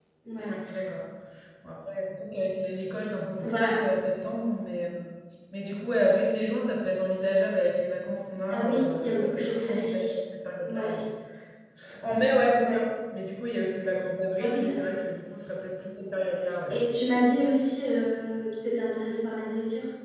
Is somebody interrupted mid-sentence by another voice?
Yes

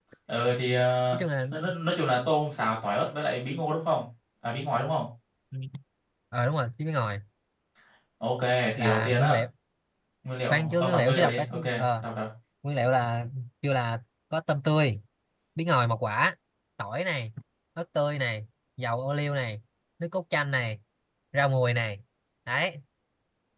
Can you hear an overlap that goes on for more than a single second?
Yes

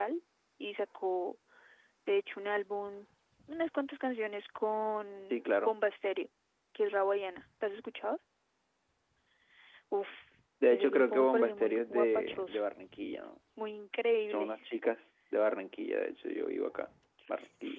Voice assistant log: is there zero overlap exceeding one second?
No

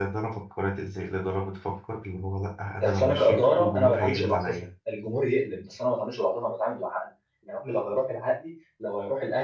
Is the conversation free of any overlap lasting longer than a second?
No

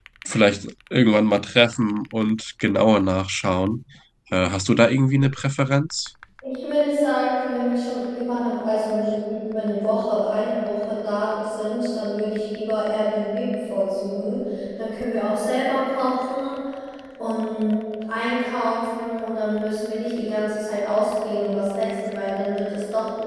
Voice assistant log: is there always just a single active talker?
Yes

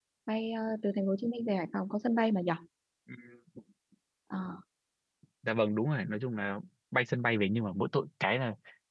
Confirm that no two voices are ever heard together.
Yes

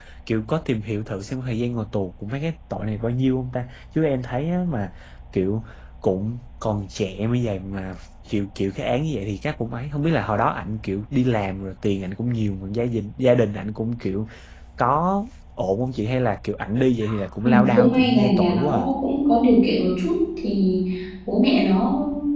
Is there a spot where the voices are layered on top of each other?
Yes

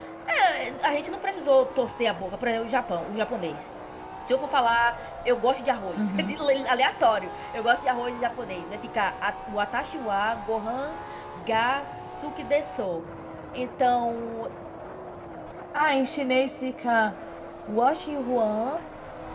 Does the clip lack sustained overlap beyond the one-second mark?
Yes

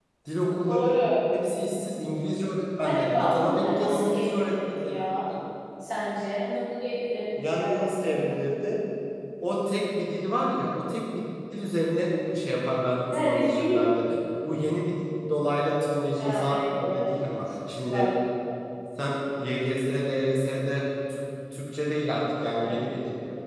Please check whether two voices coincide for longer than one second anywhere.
Yes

